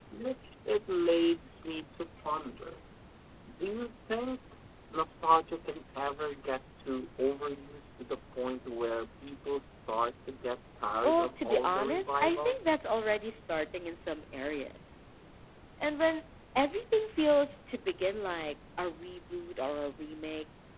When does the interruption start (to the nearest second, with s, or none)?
11 s